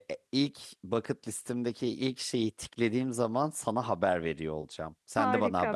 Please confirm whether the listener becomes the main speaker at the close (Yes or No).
Yes